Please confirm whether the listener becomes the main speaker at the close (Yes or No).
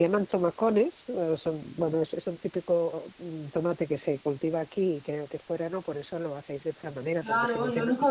Yes